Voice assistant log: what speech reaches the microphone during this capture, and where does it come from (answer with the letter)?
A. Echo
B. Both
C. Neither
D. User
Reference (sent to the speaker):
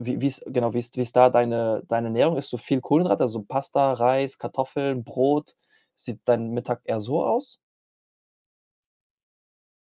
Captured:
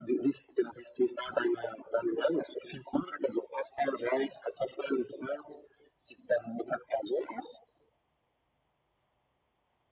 A